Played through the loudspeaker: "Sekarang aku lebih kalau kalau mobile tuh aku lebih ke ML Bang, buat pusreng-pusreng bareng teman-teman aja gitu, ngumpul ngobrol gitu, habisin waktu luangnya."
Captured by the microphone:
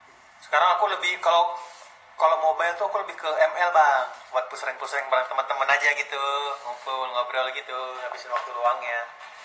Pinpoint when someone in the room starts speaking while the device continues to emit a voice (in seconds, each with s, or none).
none